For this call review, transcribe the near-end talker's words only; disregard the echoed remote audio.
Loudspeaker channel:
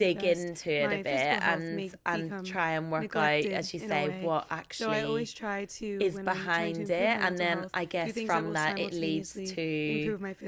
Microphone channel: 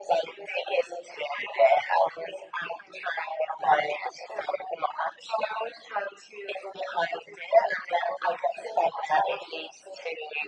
none

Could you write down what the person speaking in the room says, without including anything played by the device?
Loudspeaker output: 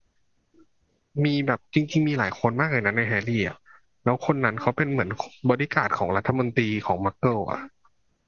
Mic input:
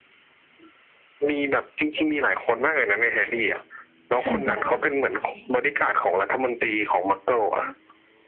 ใช่ปะ

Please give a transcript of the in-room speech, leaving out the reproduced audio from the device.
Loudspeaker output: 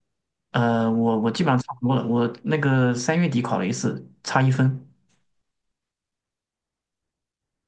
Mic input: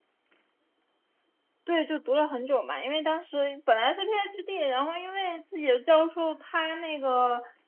对，就读了很久嘛，因为当时本来是 PhD，然后因为自己的教授他那个

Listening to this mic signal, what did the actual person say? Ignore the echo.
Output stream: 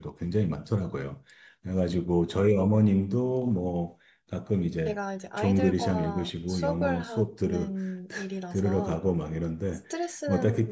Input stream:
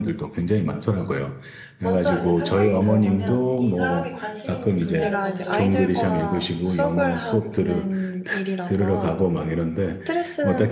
먼저 이제 상담이 들어가면 이 사람이 관심 있는 분야를 먼저

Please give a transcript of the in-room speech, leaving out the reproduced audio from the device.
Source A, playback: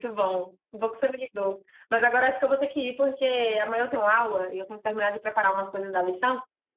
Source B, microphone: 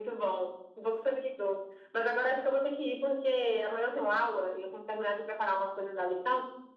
none

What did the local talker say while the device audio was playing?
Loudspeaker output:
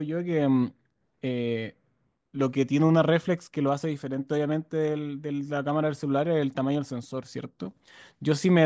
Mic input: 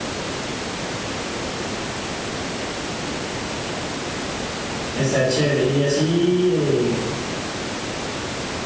está chévere. Y así eh,

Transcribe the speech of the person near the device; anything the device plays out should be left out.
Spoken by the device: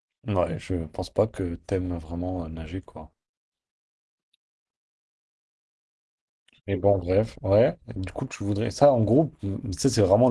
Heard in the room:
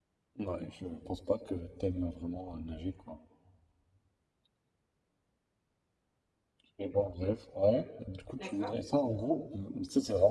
D'accord.

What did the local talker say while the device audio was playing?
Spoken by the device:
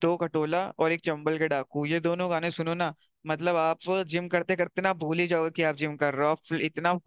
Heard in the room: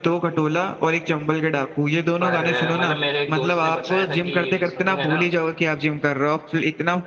पर अ, मतलब मेरे एक दोस्त ने बताया था कि ये सुन लेना

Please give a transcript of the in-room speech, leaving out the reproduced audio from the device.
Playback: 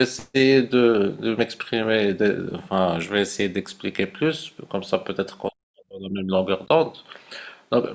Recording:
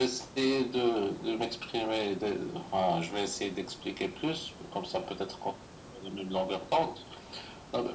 none

